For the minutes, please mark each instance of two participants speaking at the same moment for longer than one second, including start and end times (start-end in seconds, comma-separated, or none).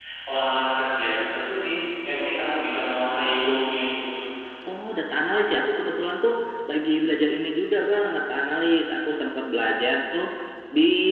none